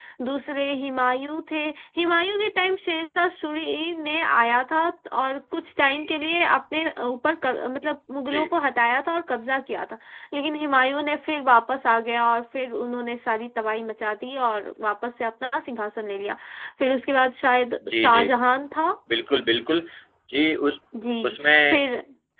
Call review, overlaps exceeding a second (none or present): none